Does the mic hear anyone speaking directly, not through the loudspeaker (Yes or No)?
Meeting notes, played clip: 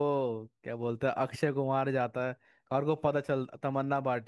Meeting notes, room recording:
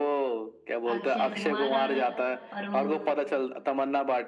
Yes